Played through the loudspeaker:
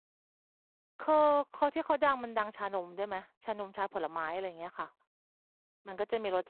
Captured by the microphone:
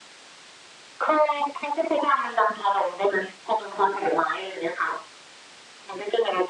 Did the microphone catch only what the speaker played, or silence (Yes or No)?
Yes